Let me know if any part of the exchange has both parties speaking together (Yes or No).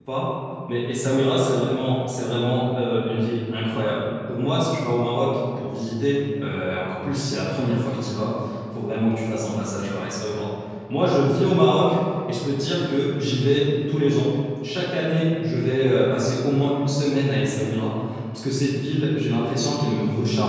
No